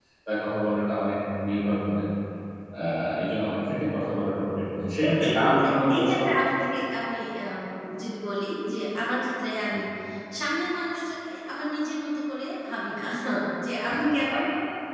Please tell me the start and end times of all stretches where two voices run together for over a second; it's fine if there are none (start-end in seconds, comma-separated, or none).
5.0-6.4